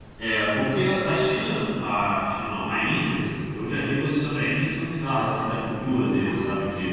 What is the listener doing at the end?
listening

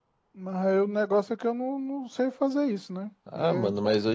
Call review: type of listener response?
taking over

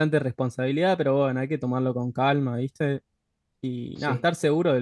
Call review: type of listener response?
listening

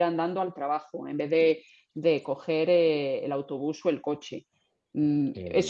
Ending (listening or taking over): listening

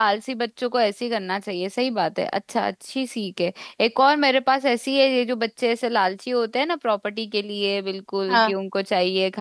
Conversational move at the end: listening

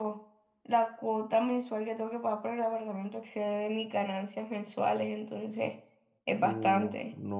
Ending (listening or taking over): taking over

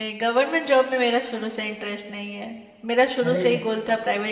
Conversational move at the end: listening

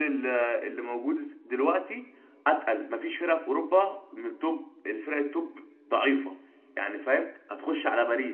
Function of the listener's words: listening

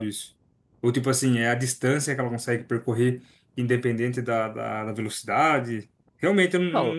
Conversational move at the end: taking over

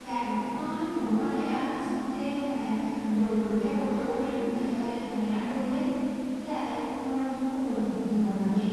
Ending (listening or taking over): listening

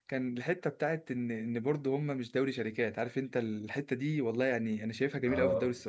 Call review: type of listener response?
listening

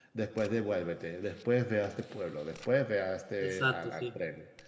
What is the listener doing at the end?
taking over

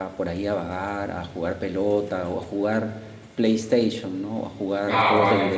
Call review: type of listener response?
taking over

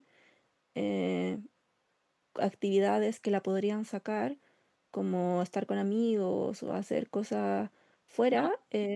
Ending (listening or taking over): listening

